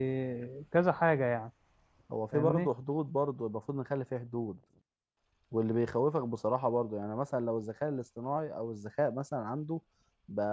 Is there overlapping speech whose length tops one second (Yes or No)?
No